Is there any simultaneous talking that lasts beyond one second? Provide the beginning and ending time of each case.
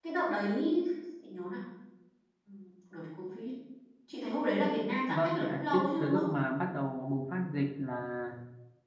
5.1-6.3

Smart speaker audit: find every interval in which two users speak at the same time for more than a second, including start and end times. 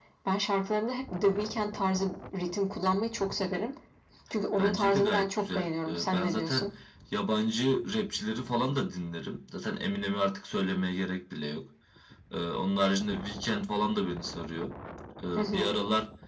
4.6-6.7

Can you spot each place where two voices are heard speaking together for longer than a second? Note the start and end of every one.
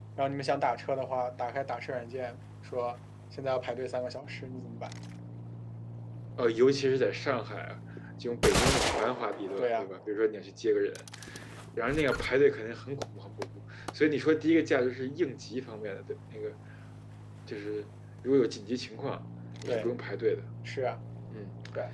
none

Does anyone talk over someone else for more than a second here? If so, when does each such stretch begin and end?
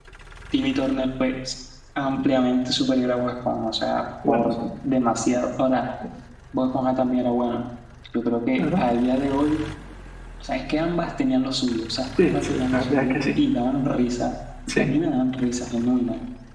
12.2-13.4

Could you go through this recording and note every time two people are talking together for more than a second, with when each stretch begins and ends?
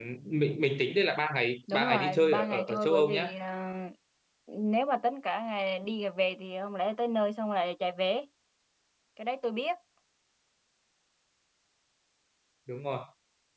1.7-3.3

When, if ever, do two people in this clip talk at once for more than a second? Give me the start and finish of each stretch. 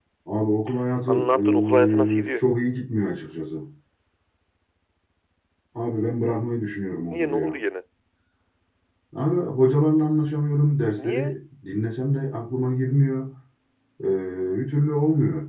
1.1-2.4

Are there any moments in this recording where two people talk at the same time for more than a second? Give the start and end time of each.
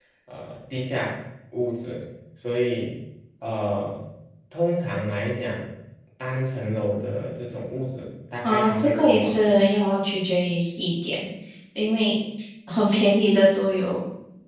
8.4-9.6

